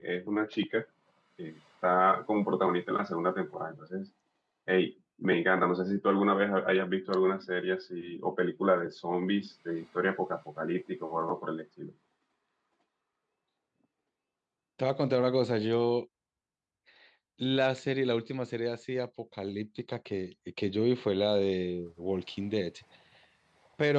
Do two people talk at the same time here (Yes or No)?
No